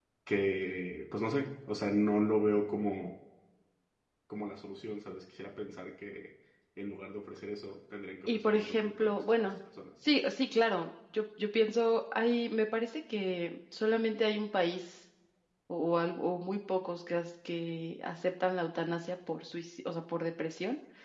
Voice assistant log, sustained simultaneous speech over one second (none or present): present